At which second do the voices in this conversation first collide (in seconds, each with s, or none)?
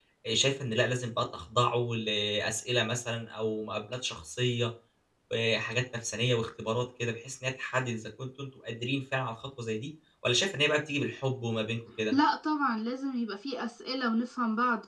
none